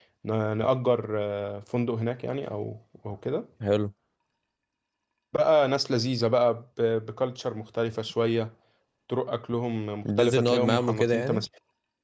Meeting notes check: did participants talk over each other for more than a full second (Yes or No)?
Yes